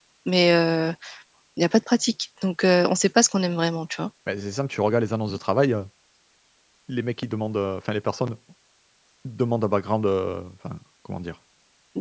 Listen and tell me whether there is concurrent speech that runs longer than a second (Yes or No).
No